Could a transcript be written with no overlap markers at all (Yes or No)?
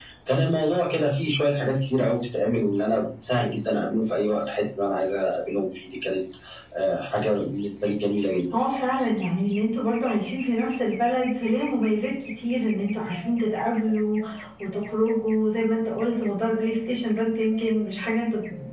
Yes